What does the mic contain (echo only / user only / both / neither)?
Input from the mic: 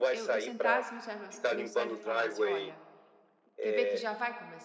both